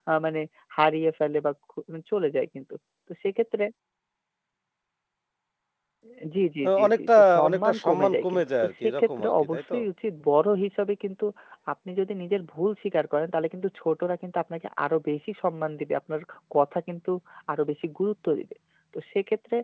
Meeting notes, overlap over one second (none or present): present